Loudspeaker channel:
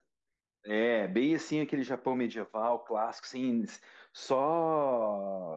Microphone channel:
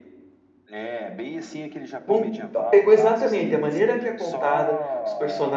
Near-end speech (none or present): present